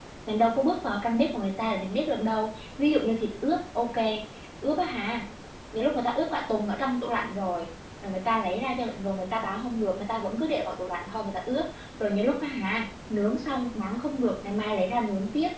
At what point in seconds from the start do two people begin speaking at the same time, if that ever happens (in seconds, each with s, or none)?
none